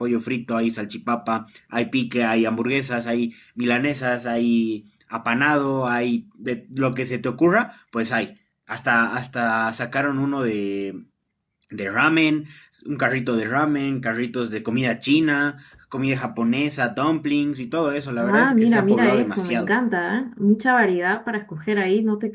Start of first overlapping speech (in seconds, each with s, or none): 18.2 s